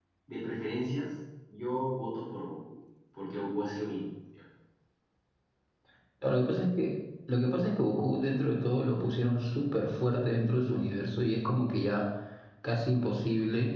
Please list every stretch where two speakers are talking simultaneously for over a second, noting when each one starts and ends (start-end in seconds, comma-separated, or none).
none